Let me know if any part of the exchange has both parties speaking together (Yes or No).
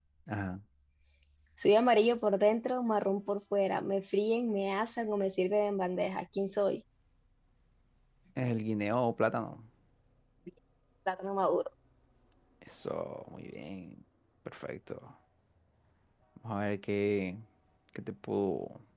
No